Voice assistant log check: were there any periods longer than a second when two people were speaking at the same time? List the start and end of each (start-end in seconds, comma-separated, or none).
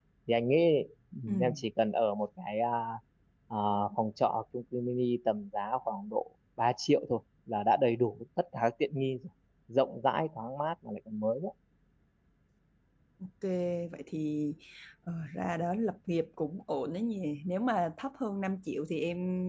none